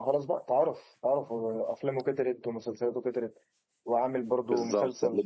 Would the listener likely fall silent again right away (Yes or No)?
No